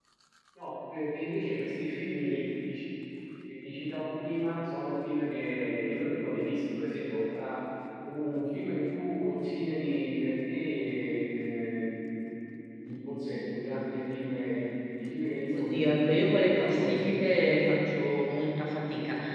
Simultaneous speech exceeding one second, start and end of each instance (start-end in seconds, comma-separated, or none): 15.5-17.5